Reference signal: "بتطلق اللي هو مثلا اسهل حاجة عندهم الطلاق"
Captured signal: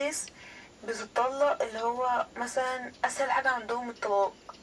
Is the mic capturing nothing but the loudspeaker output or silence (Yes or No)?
Yes